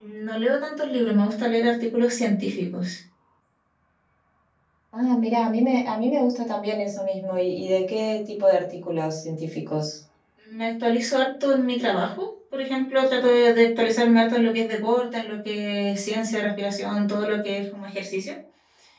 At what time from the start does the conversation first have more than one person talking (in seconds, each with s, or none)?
none